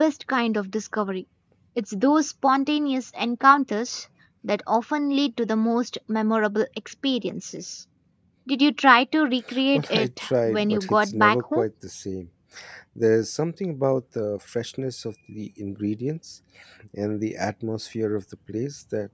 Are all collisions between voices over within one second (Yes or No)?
No